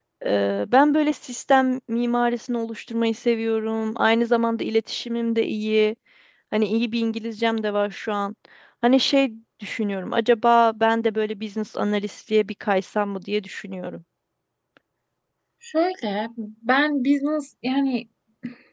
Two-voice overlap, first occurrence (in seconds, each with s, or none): none